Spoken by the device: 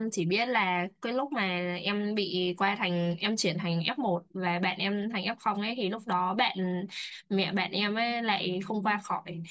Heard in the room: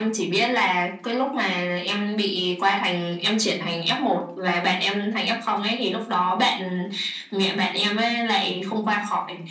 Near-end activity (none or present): none